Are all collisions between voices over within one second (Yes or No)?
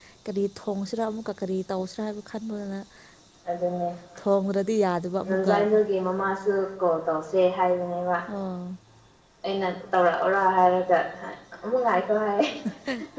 Yes